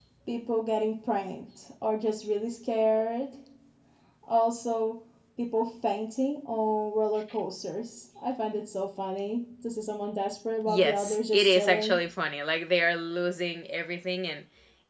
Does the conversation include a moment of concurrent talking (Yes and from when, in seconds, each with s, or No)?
Yes, from 10.7 s